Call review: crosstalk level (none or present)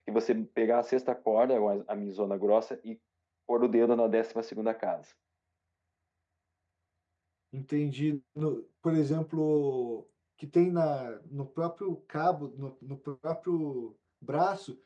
none